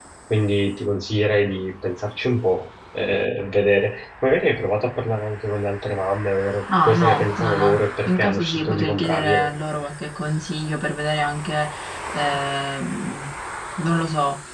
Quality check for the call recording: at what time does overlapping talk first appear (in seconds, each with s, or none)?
6.7 s